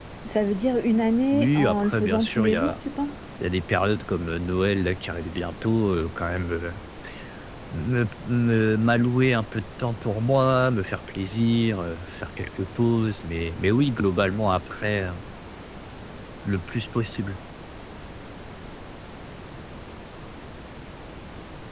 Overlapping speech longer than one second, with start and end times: 1.3-2.8

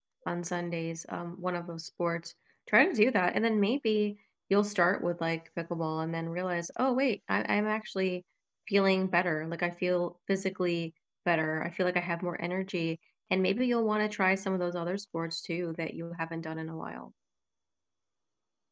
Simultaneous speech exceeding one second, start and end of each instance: none

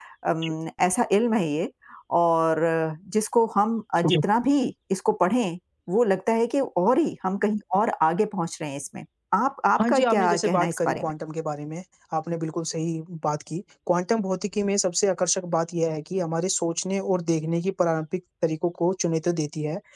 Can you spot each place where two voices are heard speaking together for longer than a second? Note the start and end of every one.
9.8-11.0

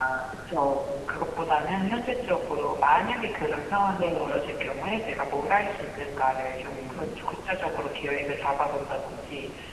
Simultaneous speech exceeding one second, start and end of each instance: none

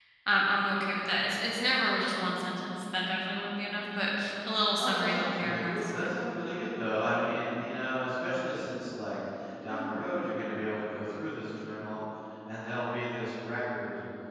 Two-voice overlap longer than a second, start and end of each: 4.8-6.2

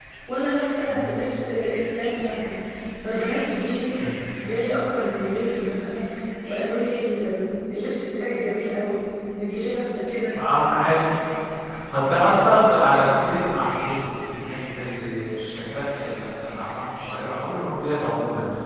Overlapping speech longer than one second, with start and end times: none

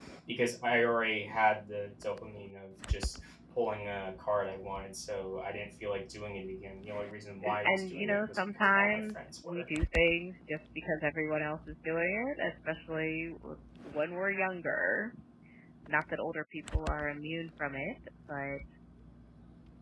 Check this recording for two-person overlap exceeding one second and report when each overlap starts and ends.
7.5-9.7

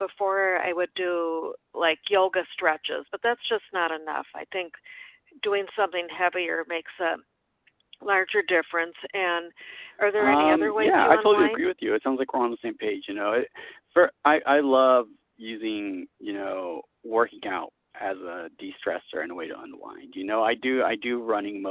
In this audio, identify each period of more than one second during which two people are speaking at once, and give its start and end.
10.2-11.7

